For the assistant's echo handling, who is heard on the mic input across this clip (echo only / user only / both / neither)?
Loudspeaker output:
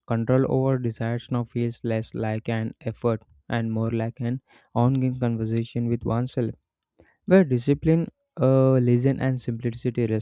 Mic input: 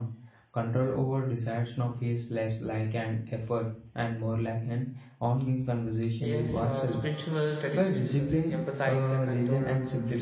both